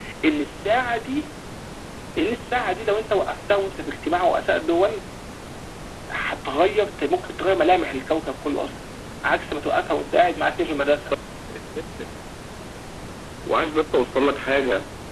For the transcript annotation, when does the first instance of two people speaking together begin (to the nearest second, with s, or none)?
none